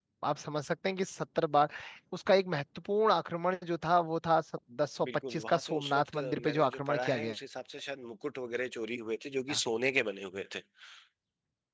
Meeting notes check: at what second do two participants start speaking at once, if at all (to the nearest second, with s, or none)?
5 s